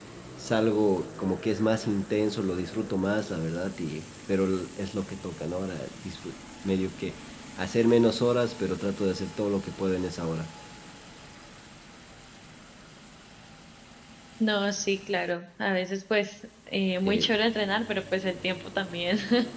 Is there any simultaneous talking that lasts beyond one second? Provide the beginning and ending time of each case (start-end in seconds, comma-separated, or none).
none